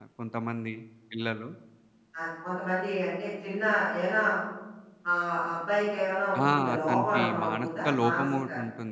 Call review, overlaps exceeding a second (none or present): present